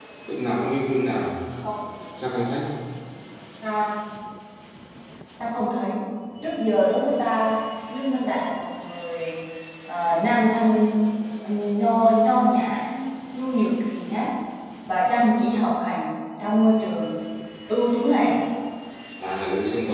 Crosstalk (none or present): none